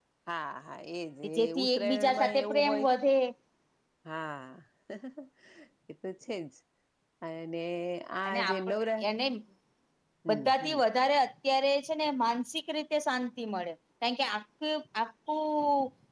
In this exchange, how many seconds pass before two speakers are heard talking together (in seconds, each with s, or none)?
1.4 s